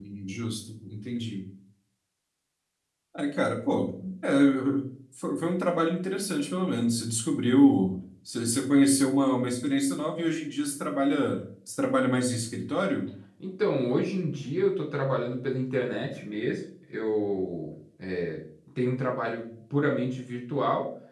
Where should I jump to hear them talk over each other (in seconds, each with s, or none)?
none